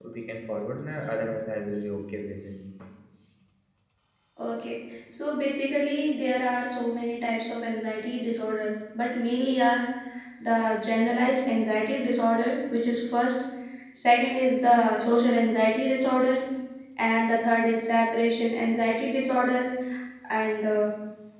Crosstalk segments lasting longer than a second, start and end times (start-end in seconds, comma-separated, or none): none